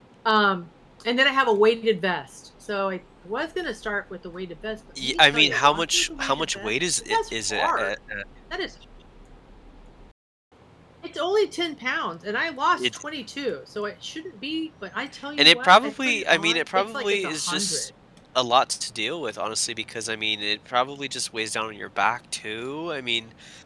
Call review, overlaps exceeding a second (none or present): present